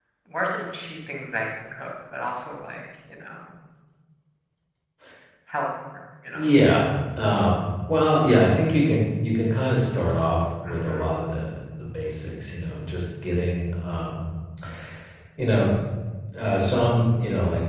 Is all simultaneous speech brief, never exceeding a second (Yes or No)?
Yes